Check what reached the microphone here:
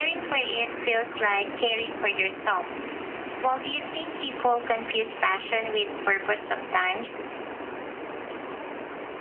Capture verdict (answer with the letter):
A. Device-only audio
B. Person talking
A